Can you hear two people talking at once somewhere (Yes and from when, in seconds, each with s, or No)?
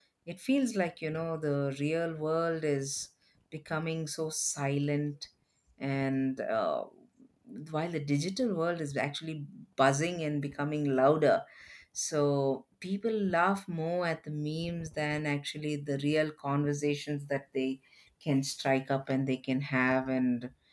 No